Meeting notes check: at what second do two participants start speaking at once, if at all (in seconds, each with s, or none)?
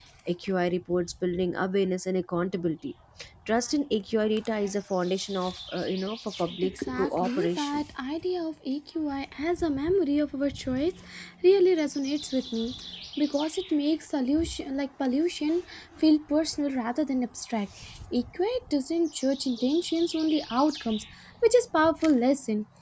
6.6 s